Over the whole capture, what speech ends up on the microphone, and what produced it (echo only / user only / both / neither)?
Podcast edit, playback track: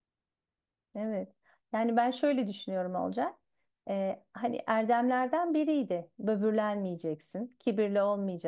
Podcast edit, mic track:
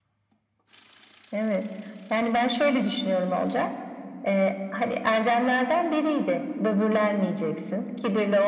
echo only